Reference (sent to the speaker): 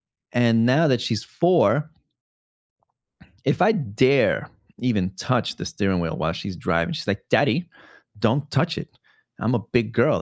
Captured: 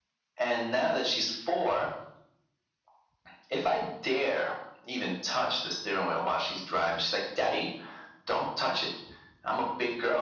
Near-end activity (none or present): none